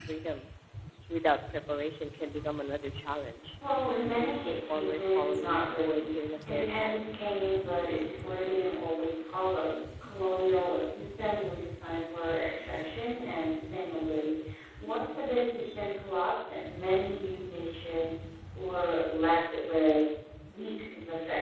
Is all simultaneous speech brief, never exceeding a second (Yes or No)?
No